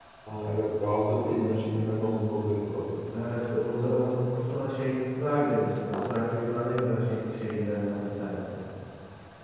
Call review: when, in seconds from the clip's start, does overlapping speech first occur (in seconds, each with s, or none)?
none